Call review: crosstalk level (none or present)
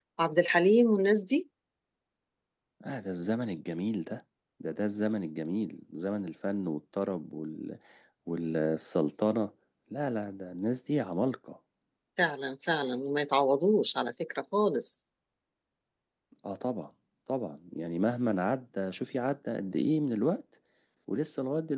none